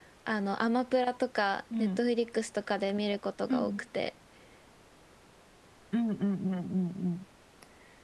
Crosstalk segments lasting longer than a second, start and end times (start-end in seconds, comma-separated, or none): none